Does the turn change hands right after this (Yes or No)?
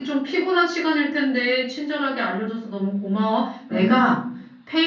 No